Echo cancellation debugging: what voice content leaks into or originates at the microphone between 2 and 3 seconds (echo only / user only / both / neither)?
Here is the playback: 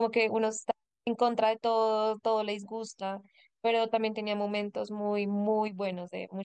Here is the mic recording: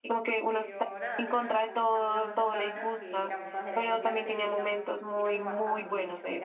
both